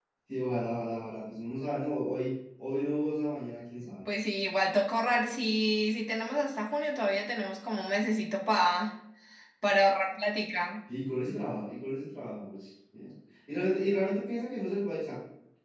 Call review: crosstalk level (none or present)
none